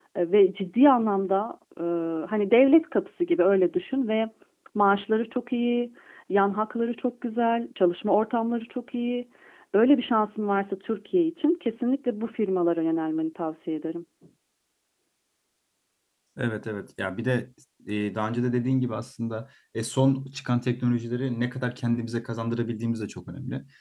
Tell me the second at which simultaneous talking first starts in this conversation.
none

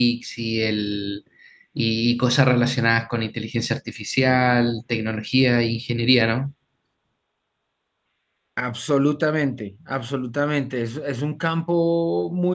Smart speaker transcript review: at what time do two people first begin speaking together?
none

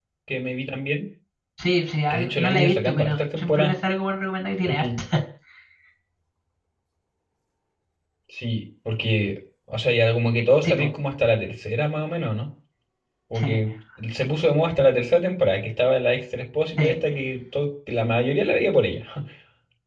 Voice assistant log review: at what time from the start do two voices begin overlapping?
2 s

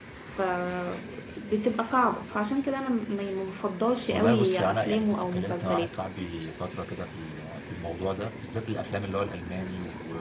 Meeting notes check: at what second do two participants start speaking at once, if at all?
4 s

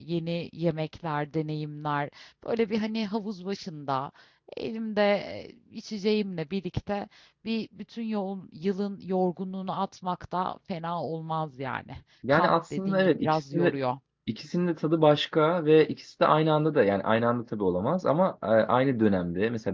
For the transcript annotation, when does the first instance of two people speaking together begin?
12 s

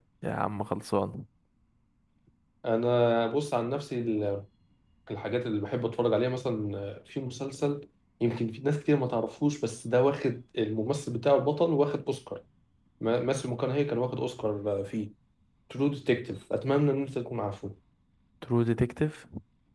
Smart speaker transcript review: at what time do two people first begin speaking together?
none

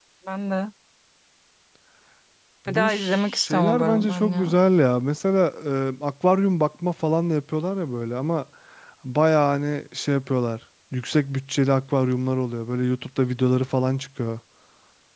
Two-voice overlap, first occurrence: 3 s

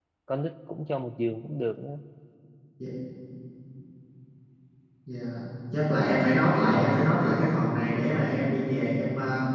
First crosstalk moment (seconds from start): none

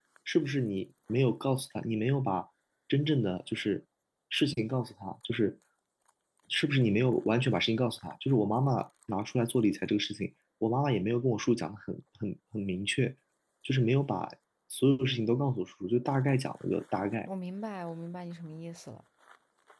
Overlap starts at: none

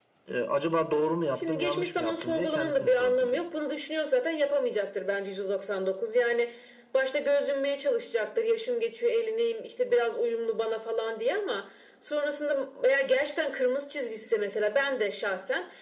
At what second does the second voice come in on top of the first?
1 s

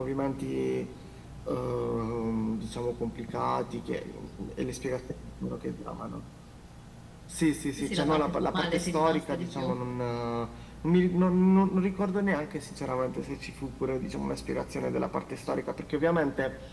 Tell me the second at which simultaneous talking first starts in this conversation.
8 s

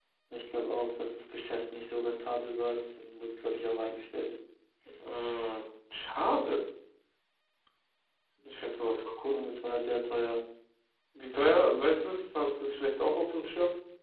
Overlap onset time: none

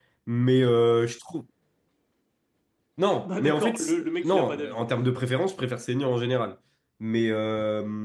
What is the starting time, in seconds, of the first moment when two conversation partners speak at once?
3 s

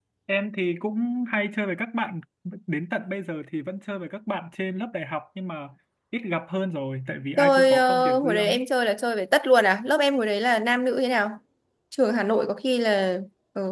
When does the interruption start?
7 s

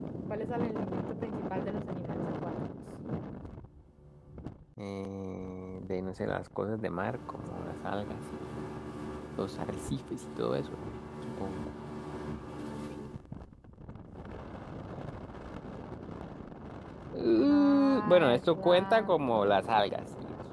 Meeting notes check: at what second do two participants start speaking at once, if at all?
17 s

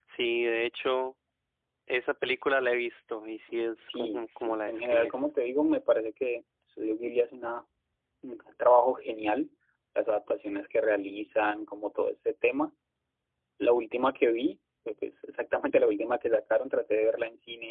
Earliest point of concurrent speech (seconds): 4 s

